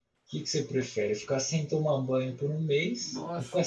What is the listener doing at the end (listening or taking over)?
listening